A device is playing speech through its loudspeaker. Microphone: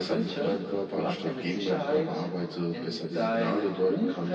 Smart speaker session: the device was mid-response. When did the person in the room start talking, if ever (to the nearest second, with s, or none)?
none